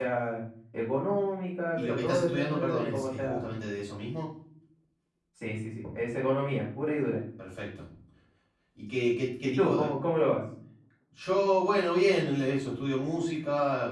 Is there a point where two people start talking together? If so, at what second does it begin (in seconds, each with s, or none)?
1.7 s